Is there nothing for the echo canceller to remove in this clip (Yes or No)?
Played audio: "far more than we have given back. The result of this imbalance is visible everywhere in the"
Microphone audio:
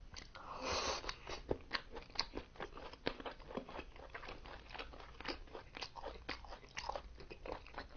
Yes